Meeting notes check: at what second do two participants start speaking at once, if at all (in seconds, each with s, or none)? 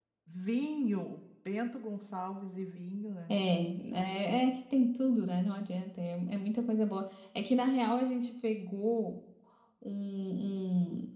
none